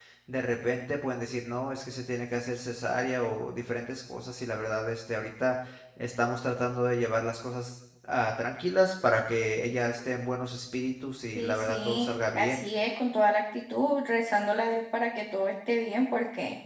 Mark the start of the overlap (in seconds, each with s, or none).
11.3 s